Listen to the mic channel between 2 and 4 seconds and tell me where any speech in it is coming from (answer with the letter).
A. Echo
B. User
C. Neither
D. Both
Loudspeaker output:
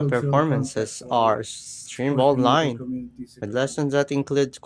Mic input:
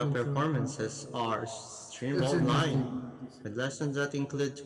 D